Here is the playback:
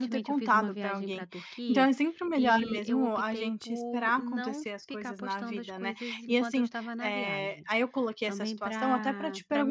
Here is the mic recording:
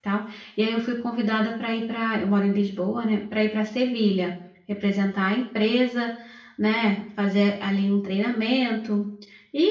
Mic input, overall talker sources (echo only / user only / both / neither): user only